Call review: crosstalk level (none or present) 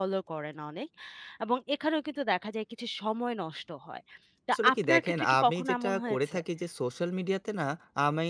present